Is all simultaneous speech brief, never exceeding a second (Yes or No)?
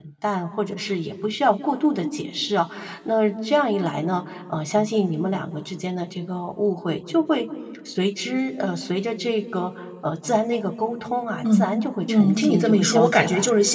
No